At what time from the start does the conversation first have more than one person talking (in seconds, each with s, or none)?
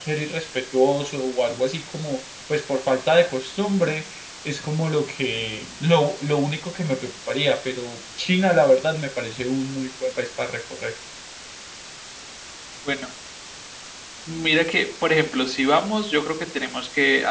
none